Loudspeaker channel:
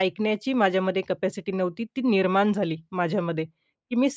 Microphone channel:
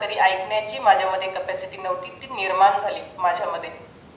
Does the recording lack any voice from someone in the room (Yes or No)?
Yes